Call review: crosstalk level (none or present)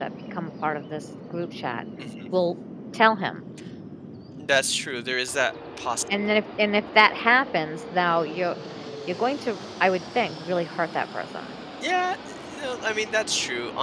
none